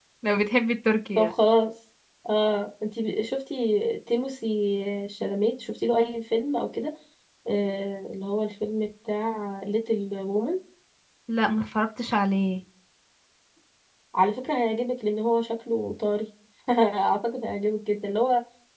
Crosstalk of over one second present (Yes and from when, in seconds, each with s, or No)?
No